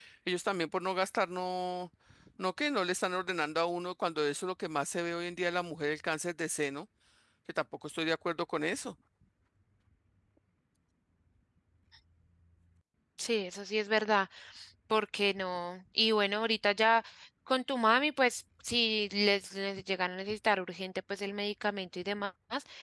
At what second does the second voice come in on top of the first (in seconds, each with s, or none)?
none